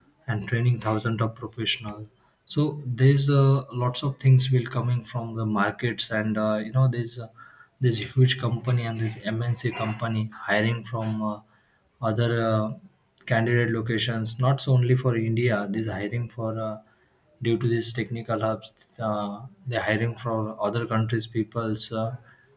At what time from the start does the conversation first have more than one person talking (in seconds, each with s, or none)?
none